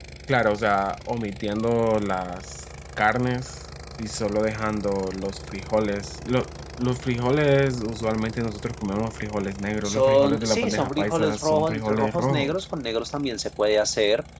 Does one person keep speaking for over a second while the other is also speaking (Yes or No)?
Yes